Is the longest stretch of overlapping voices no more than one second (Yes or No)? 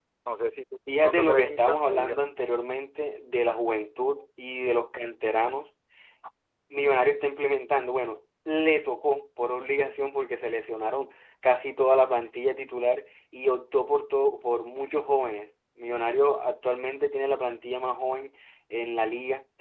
No